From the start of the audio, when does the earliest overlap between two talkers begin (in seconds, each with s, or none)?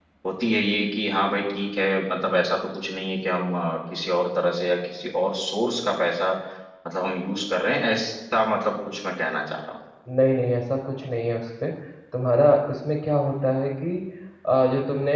none